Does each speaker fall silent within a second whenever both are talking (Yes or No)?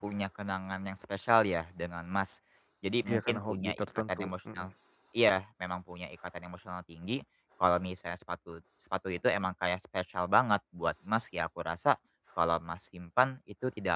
No